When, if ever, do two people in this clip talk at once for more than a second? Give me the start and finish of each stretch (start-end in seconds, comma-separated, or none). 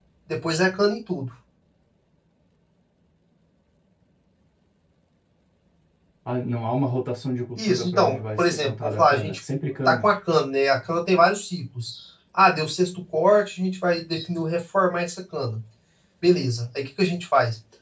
7.6-9.4